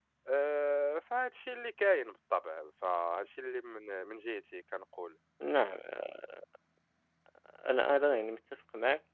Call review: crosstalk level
none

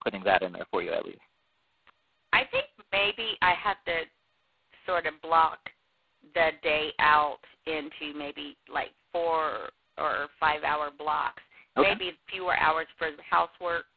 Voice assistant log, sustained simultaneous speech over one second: none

